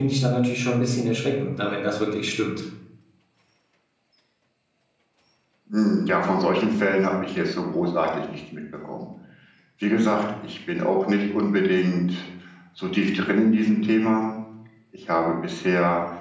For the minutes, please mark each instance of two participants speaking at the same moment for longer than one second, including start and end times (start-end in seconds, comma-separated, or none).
none